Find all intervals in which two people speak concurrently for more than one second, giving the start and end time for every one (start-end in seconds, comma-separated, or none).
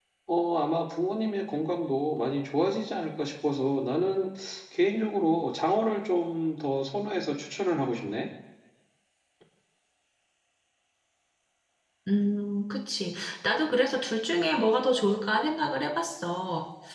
none